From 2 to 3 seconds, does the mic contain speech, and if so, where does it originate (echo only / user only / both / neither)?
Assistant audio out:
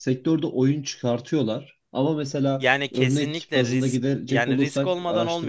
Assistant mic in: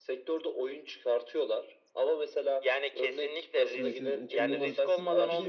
echo only